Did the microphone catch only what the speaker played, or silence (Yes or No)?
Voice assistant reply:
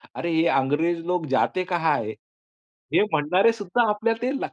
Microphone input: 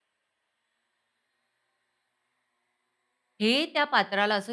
No